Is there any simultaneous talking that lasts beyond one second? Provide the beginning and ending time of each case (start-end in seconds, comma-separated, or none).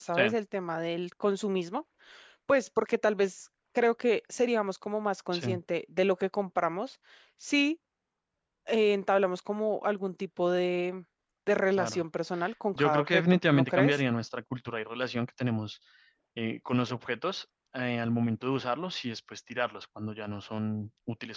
12.8-14.0